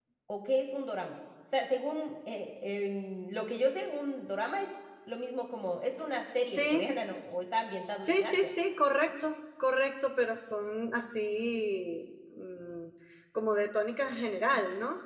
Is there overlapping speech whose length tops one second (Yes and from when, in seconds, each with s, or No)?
No